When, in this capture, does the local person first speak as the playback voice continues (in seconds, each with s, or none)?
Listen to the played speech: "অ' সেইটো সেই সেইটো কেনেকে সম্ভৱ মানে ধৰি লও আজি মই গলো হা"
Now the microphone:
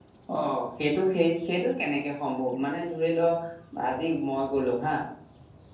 none